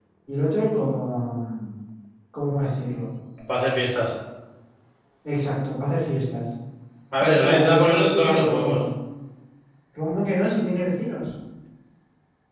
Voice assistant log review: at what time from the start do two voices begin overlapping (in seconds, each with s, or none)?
7.2 s